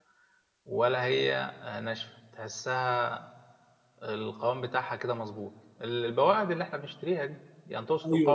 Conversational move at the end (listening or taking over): taking over